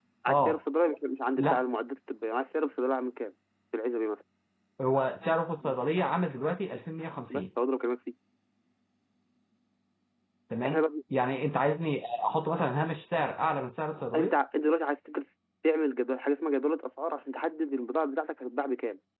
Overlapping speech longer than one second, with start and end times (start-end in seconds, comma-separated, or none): none